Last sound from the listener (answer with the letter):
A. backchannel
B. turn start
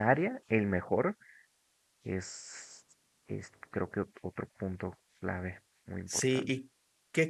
B